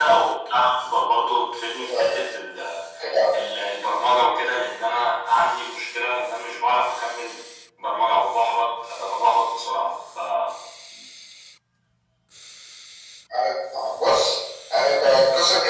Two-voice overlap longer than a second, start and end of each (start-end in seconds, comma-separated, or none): none